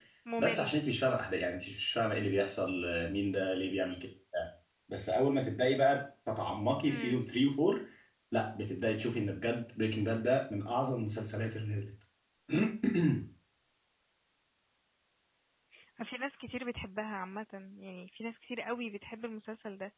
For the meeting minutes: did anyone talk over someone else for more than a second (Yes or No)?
No